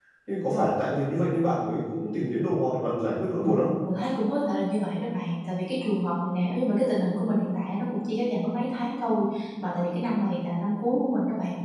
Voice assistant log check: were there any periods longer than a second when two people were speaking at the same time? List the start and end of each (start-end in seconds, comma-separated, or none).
none